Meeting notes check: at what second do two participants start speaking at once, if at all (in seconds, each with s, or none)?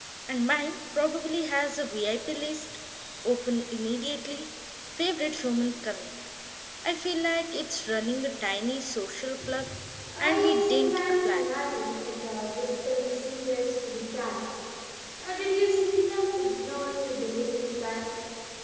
10.2 s